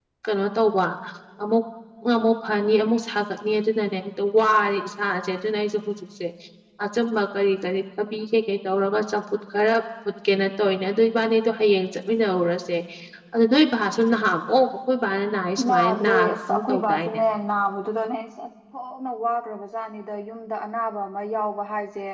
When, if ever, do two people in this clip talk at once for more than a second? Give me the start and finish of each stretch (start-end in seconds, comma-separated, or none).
15.7-17.2